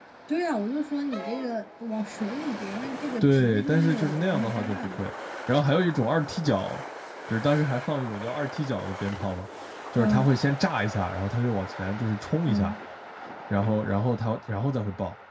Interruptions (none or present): present